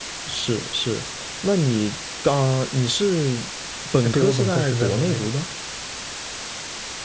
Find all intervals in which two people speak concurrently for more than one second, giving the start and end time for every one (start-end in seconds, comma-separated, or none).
4.0-5.3